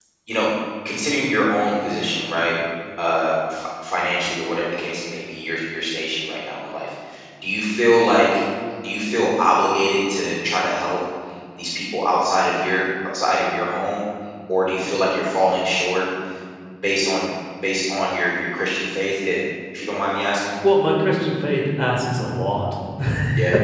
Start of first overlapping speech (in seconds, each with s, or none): none